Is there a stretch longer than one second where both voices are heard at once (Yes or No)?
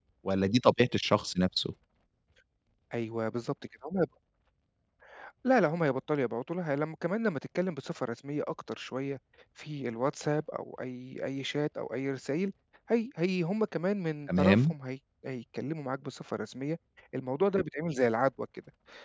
No